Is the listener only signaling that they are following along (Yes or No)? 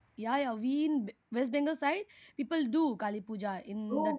No